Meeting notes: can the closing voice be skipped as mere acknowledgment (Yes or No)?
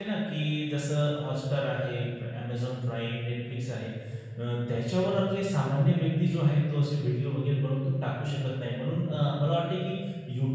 Yes